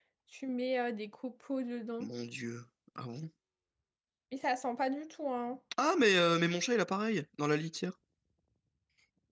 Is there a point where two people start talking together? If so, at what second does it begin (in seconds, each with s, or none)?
none